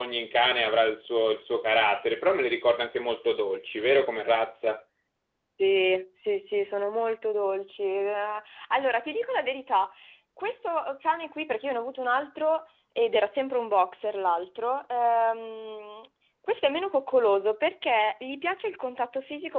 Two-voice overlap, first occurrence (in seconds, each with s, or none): none